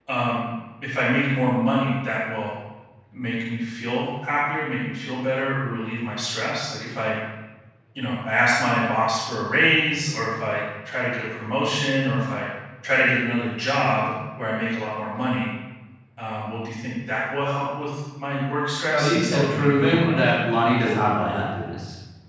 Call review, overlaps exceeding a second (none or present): present